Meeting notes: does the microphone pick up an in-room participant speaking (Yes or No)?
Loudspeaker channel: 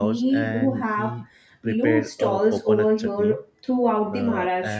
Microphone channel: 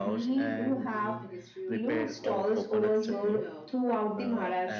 Yes